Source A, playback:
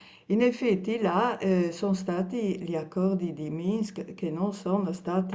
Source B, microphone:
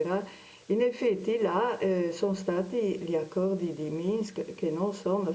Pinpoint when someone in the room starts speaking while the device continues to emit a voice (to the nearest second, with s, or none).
none